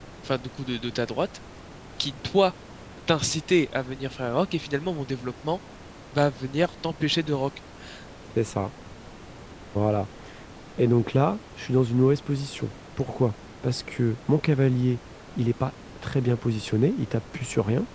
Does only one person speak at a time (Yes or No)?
Yes